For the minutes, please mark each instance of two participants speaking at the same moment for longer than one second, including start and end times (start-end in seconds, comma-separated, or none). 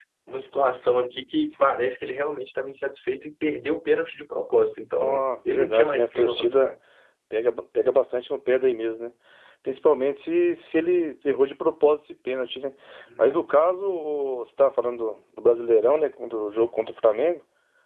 5.0-6.7